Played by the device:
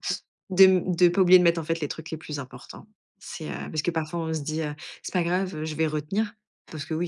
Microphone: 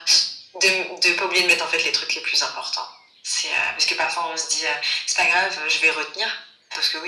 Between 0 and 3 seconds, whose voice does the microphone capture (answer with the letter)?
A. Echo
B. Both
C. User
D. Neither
A